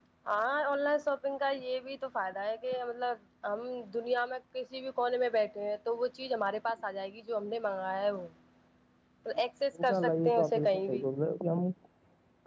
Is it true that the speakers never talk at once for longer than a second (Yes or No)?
No